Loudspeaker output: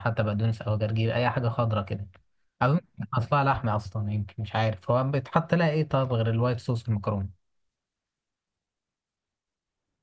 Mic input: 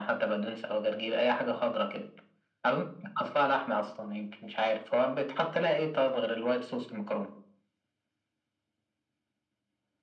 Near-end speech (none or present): none